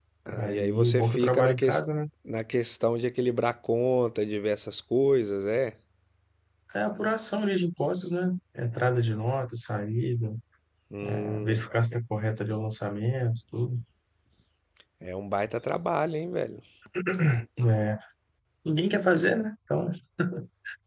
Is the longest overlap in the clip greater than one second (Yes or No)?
Yes